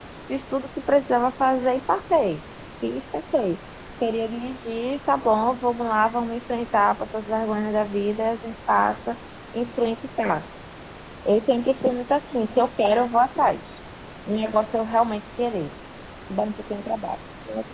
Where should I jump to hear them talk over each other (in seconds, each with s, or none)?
none